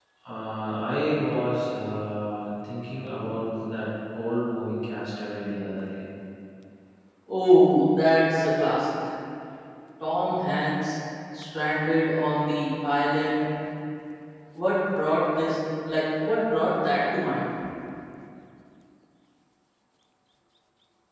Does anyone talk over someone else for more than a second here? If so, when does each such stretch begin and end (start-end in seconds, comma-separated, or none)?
none